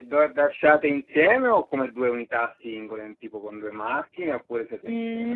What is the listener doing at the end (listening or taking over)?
taking over